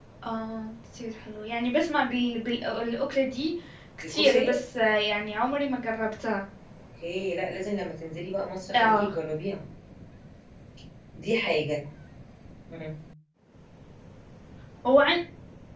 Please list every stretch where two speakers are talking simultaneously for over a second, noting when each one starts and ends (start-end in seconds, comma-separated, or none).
none